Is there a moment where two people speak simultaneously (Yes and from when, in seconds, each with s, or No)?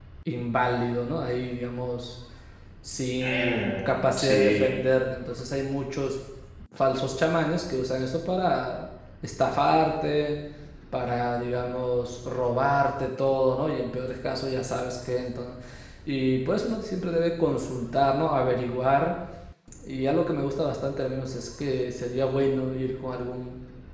Yes, from 3.2 s